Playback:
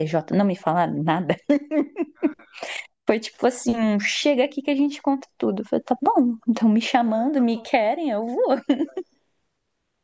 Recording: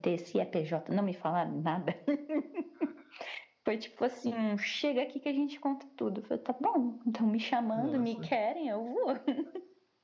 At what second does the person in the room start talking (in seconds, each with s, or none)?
7.7 s